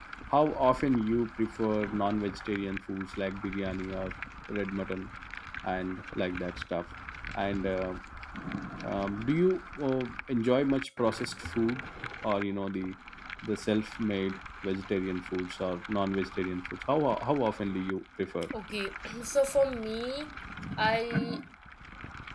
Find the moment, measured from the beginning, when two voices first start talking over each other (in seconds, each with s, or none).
none